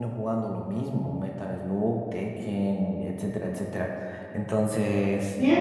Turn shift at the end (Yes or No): Yes